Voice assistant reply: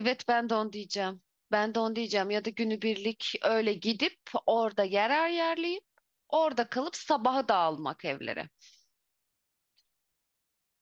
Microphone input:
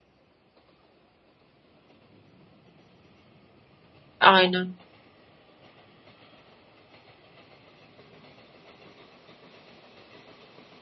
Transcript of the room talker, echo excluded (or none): Aynen.